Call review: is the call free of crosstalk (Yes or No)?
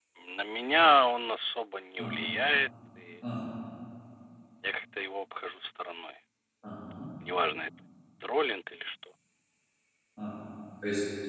Yes